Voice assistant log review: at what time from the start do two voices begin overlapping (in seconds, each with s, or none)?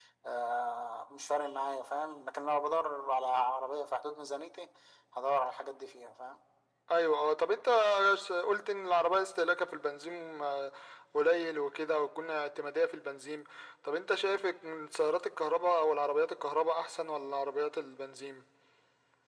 none